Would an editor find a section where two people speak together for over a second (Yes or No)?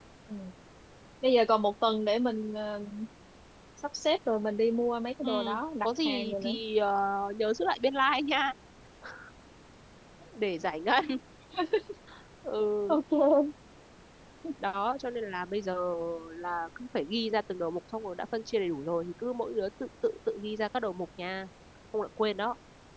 Yes